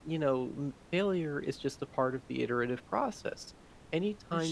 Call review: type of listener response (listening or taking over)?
listening